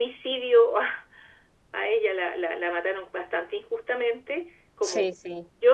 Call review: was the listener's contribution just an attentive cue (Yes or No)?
Yes